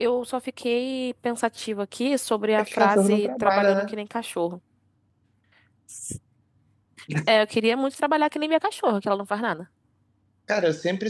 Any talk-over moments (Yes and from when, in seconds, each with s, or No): Yes, from 2.6 s